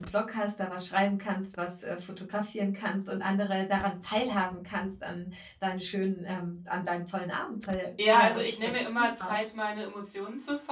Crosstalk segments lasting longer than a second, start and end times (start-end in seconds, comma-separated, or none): 8.1-9.4